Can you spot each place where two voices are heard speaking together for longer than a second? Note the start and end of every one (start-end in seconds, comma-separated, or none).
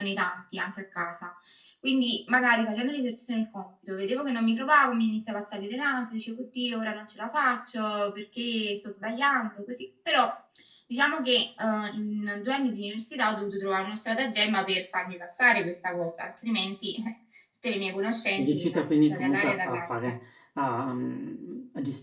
18.4-20.1